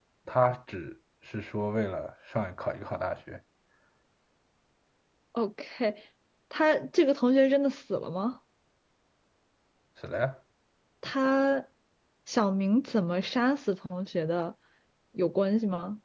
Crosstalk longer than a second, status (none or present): none